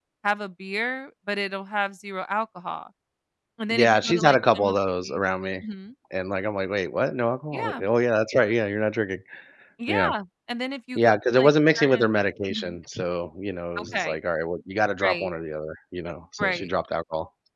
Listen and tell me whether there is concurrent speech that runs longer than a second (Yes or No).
Yes